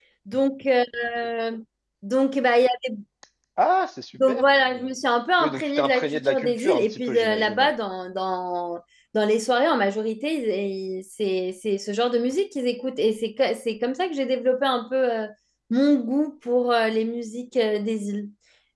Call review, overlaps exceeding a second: present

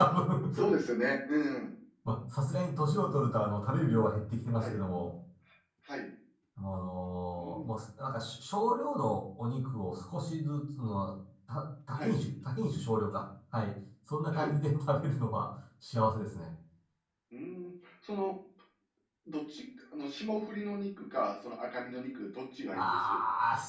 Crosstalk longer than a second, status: none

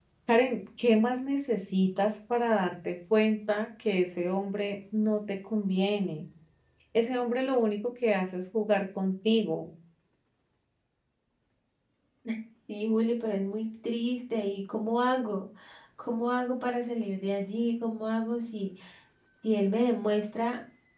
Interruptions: none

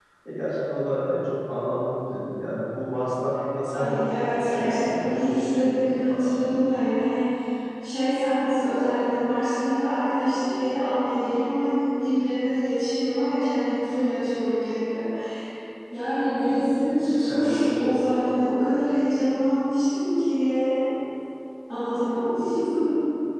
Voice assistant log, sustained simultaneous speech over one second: present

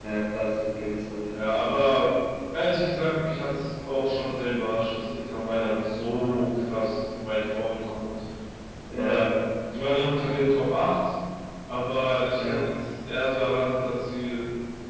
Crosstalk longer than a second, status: none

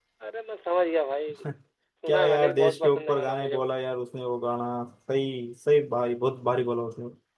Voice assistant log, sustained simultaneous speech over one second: present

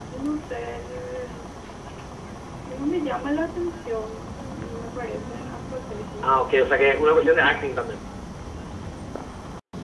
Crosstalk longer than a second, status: present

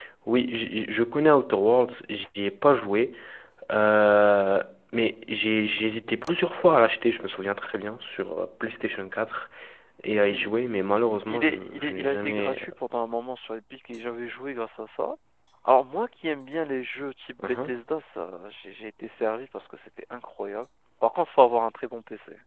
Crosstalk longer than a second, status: present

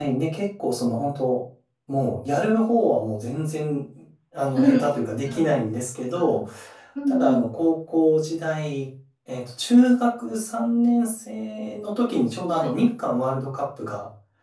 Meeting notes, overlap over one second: none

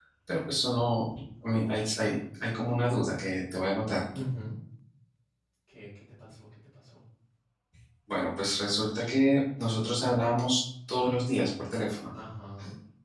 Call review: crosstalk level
none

